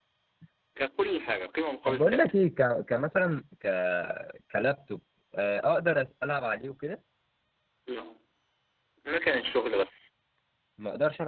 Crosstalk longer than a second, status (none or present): none